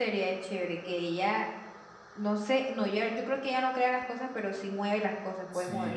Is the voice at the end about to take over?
Yes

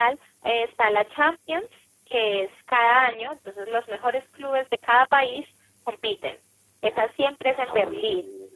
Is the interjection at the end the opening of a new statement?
No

